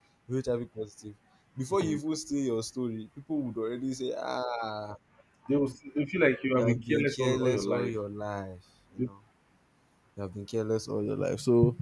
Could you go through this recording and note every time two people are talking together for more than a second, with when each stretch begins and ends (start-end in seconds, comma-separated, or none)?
6.5-7.9